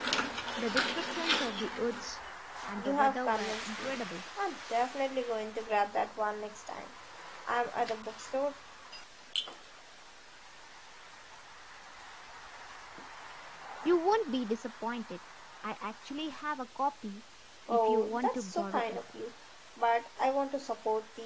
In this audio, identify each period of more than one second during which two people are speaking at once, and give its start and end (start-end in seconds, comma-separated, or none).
2.8-4.0, 17.7-19.0